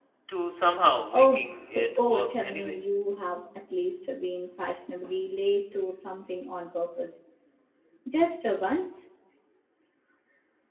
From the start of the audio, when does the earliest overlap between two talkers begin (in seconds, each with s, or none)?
1.1 s